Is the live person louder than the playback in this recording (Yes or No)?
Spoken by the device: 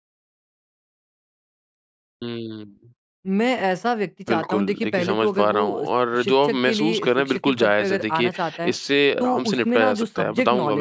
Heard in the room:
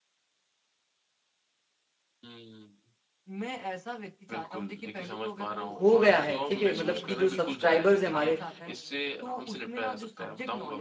Yes